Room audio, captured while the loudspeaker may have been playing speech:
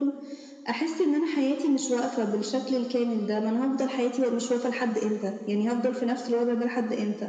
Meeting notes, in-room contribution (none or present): none